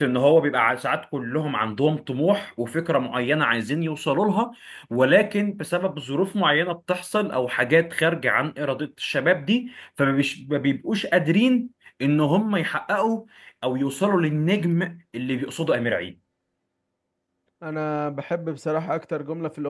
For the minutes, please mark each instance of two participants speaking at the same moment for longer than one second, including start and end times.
none

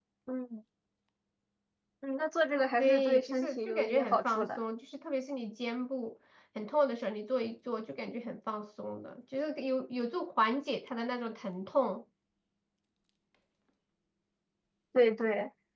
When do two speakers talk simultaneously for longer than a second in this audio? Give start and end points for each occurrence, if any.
2.8-4.6

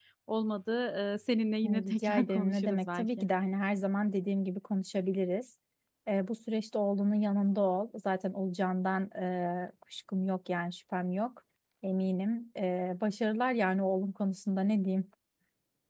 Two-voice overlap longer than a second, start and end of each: 1.6-3.3

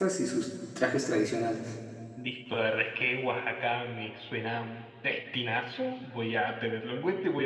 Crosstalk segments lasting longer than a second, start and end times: none

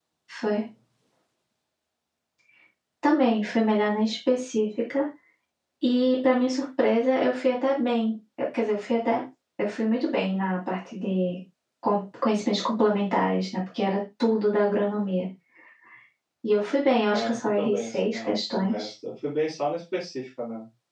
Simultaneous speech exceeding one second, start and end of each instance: 17.1-18.9

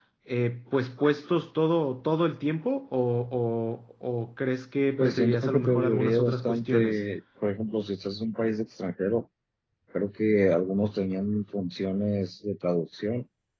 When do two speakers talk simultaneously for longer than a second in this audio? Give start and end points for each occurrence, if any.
5.0-7.0

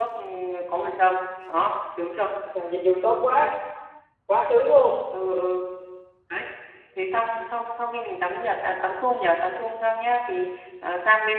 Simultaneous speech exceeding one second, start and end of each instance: none

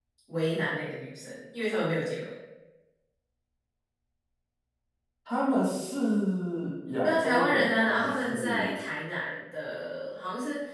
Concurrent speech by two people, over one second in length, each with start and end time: 7.0-8.7

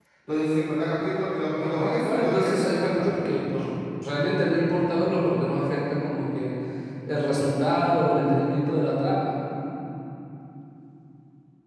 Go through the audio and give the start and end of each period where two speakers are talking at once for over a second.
1.5-3.3

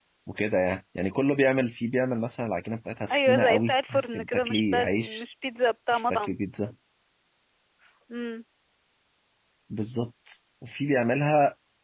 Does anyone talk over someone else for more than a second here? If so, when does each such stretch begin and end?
3.1-5.2

